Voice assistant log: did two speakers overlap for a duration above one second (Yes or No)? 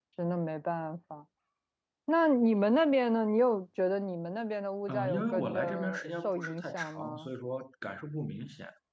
Yes